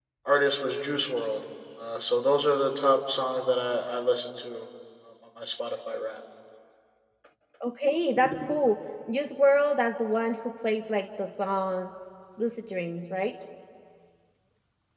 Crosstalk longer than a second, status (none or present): none